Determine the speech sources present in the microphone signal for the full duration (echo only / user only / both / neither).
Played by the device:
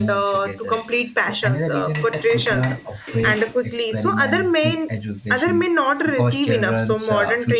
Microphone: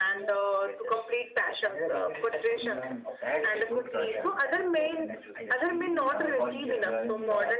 both